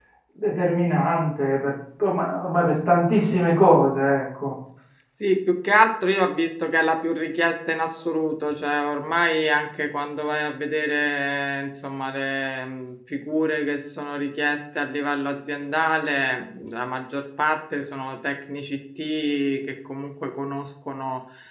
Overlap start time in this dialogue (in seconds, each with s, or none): none